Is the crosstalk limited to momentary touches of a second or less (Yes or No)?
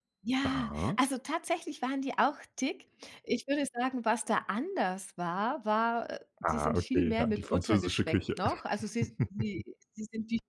No